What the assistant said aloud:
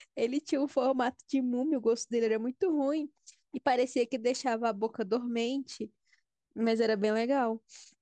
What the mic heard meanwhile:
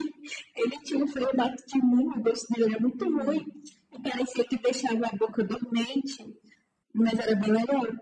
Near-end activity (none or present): present